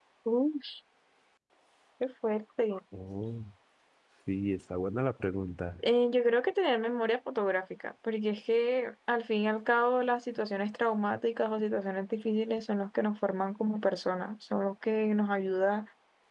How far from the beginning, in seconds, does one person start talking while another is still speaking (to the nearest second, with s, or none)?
none